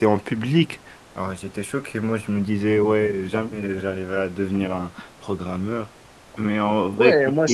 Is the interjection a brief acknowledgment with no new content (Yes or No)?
No